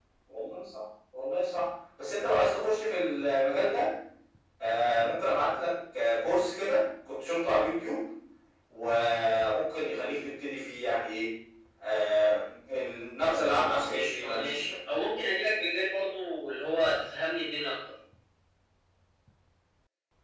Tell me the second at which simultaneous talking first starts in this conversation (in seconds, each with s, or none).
13.2 s